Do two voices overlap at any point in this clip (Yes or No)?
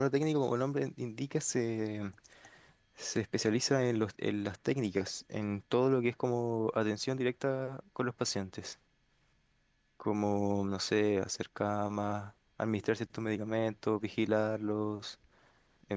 No